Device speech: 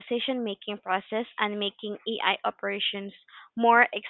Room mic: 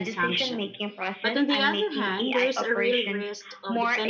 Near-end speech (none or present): present